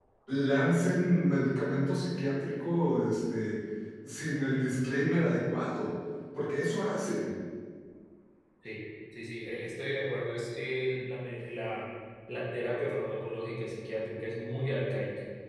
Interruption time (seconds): none

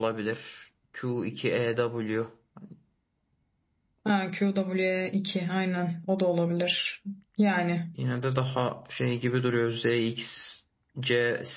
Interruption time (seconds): none

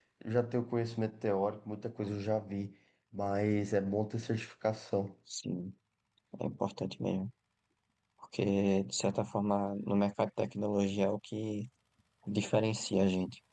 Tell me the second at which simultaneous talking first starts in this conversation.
none

